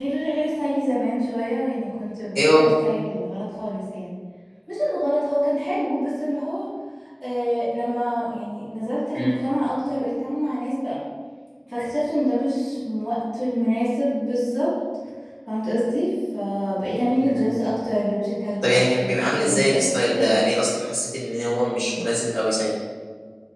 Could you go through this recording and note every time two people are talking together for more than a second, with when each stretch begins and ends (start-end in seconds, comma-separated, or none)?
18.6-20.4